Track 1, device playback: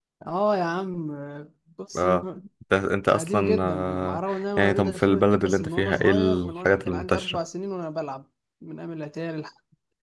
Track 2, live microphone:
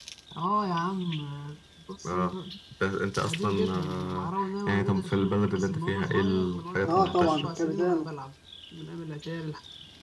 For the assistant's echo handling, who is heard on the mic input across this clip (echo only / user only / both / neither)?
both